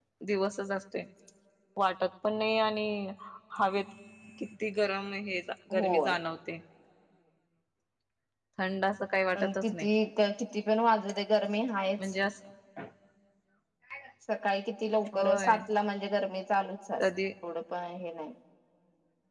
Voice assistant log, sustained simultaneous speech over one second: none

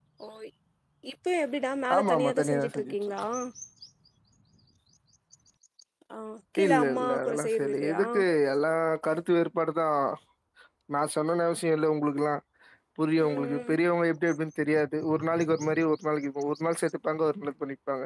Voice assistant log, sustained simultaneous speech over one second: present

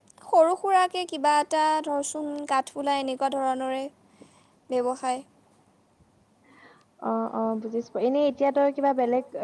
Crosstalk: none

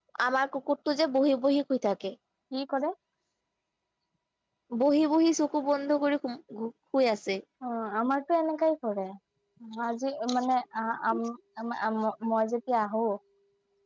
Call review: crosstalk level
none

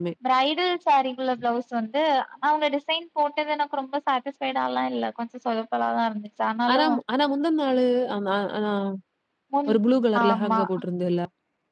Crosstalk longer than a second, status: none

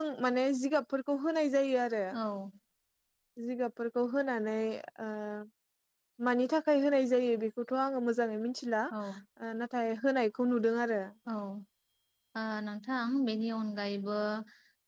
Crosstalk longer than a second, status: none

